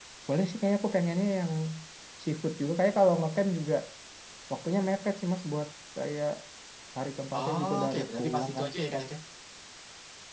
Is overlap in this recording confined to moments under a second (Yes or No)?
No